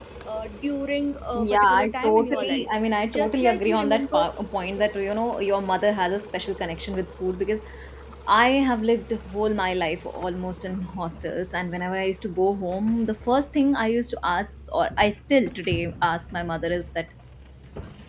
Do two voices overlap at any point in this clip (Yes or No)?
Yes